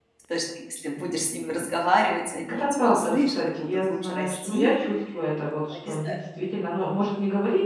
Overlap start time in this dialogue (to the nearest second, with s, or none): 2 s